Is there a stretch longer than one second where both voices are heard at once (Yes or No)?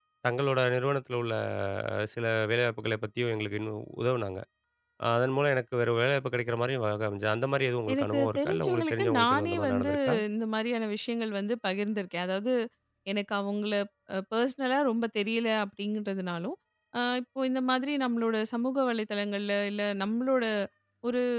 Yes